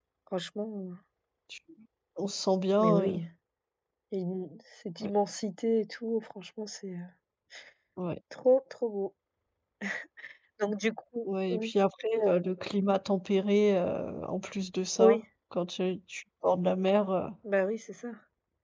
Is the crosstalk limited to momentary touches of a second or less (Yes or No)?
Yes